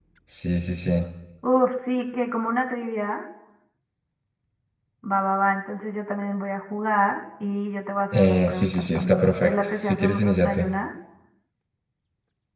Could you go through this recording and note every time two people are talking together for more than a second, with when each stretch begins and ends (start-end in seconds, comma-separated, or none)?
8.1-10.6